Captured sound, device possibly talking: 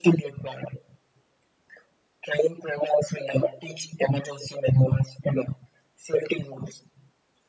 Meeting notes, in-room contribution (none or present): none